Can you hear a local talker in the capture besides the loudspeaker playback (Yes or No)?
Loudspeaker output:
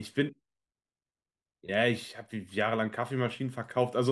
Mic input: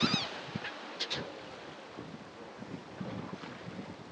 No